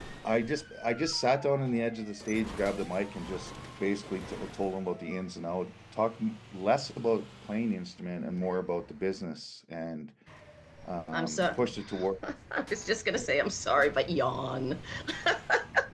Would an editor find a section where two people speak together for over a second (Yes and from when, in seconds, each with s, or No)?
No